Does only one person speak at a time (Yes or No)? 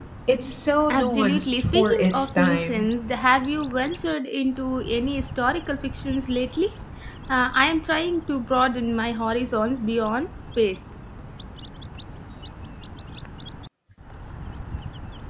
No